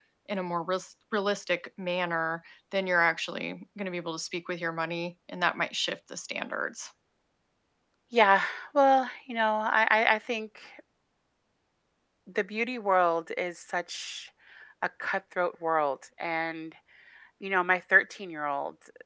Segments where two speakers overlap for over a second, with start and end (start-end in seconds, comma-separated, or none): none